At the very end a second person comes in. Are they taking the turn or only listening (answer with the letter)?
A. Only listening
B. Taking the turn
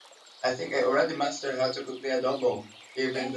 B